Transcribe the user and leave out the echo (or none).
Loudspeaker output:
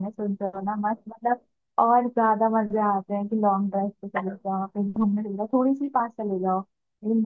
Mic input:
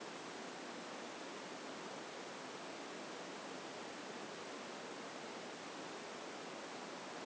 none